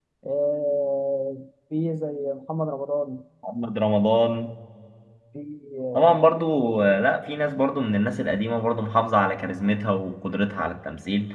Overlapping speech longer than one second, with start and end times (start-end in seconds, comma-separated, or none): none